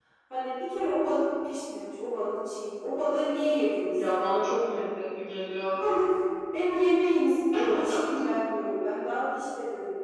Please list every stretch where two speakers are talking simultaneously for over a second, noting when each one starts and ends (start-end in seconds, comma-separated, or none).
none